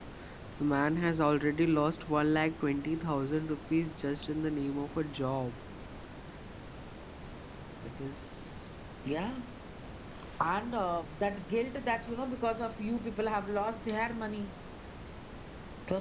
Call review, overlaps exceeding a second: none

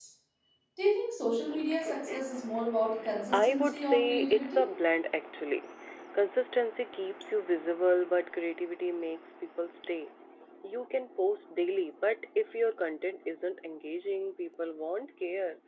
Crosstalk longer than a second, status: present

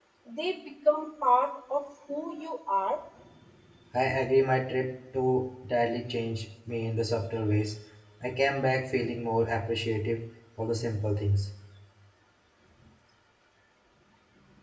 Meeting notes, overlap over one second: none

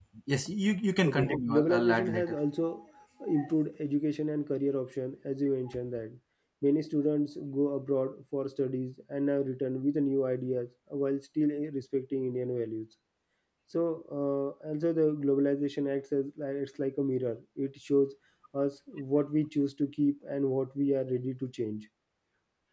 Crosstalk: present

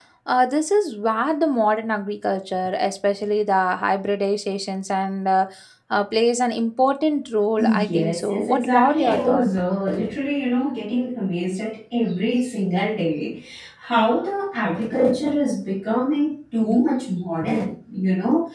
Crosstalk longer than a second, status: present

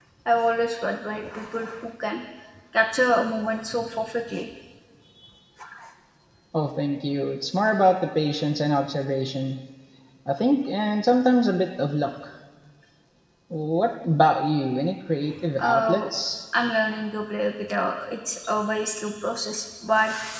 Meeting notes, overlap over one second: none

